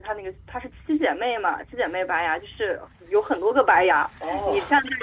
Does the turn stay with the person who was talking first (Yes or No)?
Yes